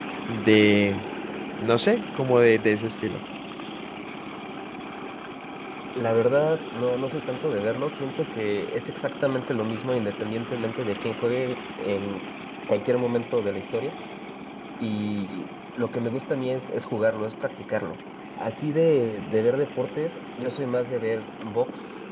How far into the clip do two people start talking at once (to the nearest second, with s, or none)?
none